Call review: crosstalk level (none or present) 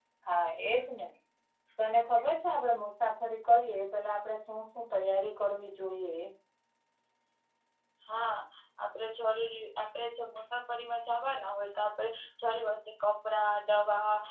none